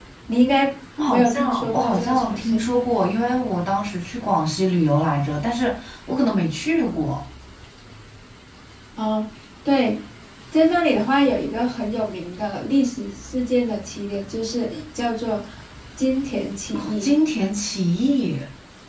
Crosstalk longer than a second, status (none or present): present